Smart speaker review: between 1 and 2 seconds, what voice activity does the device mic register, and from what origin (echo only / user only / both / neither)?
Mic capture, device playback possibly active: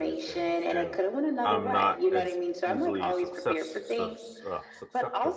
both